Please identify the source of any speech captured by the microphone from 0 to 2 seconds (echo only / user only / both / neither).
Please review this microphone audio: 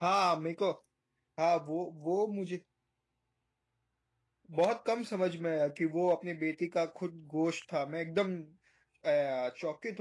user only